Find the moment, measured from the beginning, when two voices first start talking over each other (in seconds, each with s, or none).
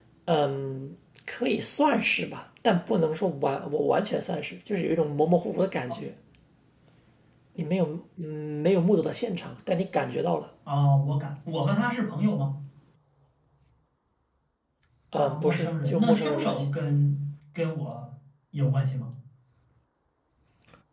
15.1 s